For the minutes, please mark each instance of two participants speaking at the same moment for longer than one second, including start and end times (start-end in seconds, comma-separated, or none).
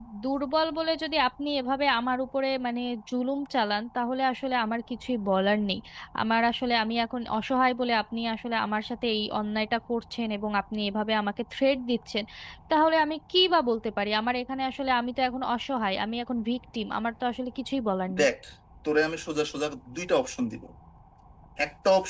none